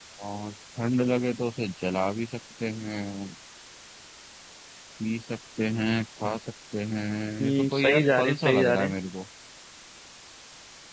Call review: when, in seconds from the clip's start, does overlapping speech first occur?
7 s

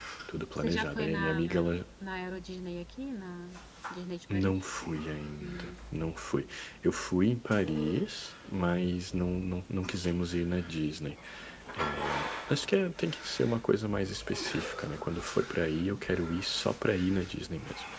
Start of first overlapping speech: 1 s

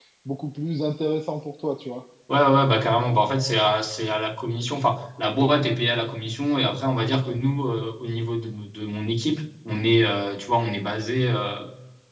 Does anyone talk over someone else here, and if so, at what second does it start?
none

